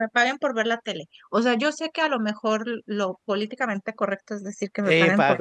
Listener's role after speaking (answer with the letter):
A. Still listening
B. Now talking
B